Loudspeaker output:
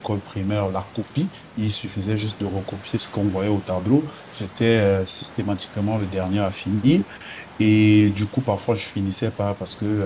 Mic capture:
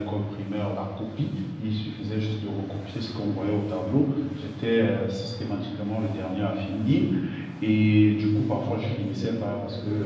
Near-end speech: present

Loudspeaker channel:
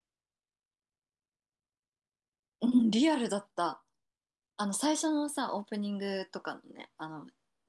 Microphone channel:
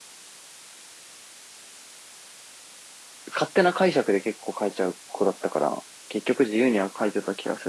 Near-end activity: present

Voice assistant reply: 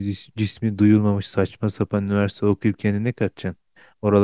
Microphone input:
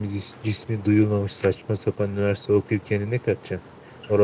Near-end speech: none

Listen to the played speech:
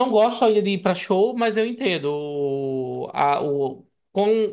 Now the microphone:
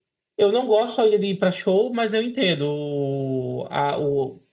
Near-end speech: none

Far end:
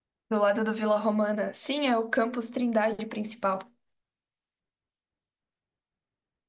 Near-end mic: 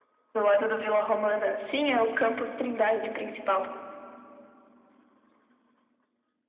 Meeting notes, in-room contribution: none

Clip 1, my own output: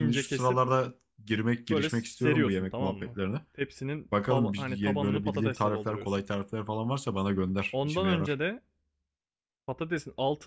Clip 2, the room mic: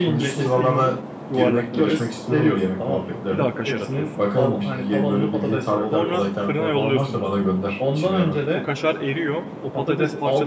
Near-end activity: present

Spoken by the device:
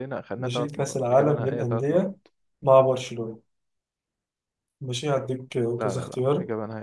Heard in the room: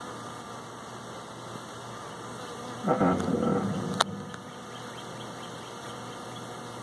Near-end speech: present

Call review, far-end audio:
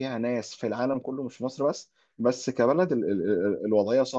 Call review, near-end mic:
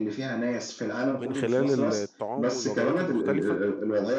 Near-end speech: present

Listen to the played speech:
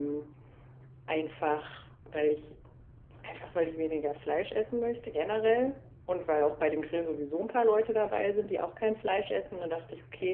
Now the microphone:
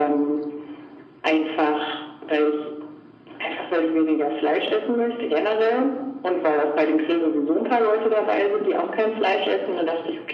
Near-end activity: none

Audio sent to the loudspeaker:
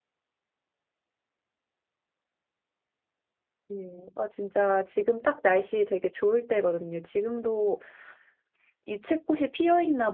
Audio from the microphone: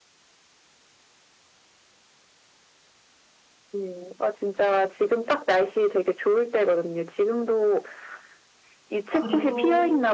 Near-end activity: present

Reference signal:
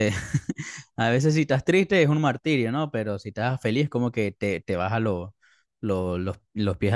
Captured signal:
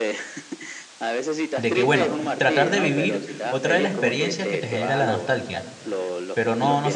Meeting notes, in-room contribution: present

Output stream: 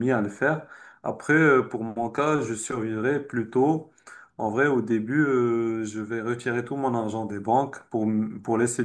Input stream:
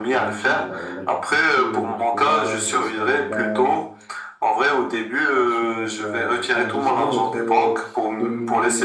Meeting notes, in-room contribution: present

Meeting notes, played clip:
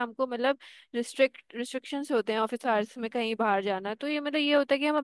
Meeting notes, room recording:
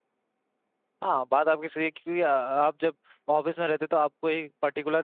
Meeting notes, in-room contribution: present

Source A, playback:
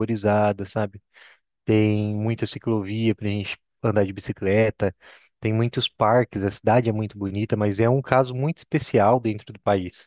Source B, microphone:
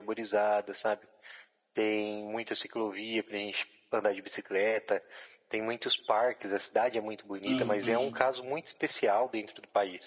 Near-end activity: present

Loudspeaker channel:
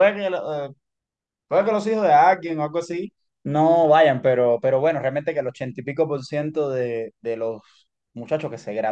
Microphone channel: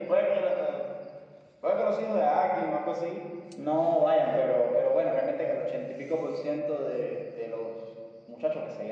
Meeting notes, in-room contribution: none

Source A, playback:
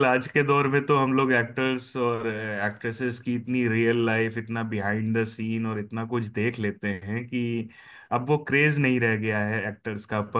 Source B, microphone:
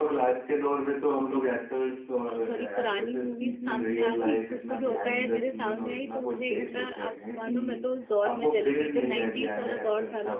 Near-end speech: present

